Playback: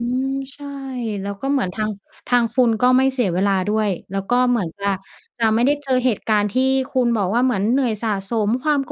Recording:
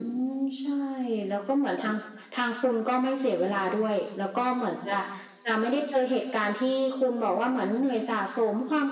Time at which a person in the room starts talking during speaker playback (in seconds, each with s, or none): none